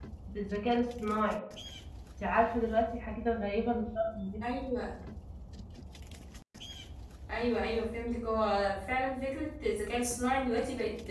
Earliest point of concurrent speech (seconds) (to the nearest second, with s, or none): none